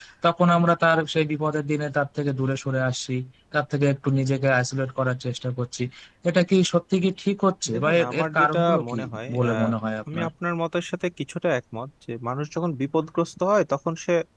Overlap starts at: 7.7 s

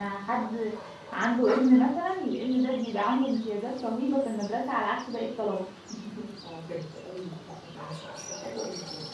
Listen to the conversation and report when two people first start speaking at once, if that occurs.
none

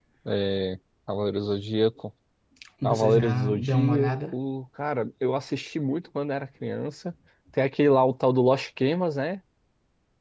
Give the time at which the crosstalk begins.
2.8 s

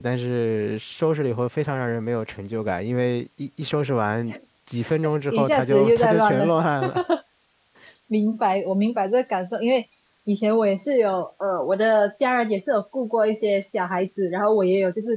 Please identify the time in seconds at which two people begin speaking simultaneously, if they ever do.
5.3 s

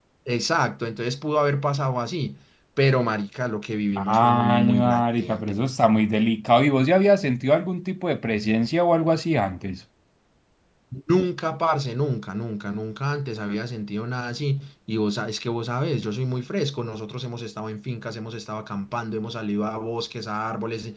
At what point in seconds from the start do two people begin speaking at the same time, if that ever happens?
4.0 s

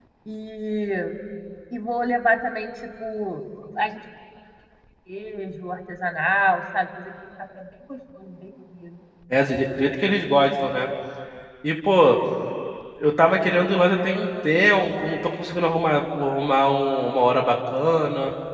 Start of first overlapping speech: none

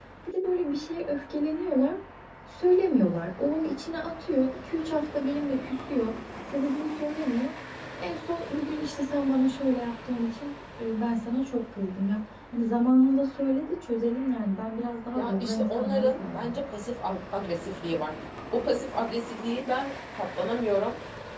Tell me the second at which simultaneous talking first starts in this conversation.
15.2 s

